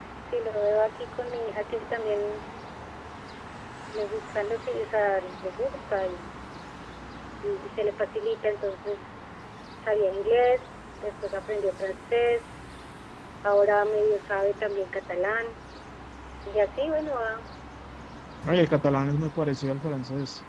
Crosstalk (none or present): none